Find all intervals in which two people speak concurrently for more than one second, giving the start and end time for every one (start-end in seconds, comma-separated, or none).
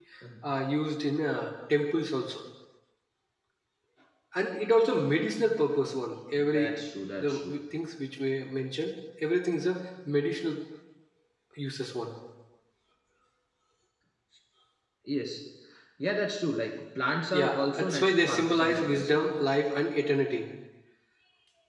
17.3-19.2